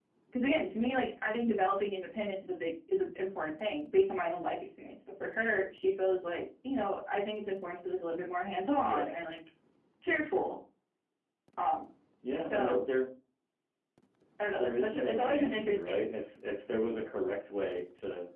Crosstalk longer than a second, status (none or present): present